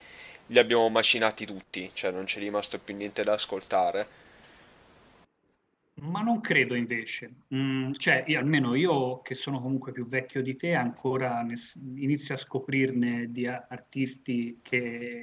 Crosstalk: none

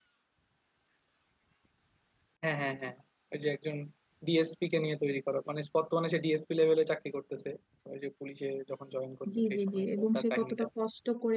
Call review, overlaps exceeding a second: present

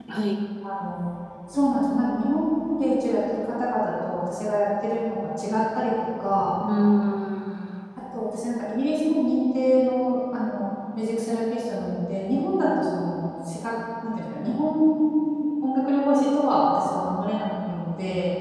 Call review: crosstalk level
none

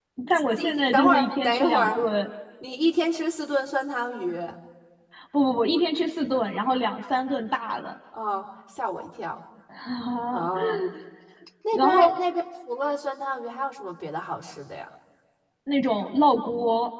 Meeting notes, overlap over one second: present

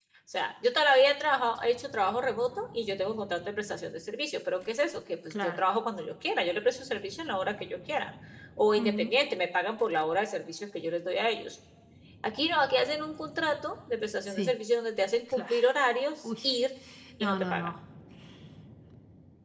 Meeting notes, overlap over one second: none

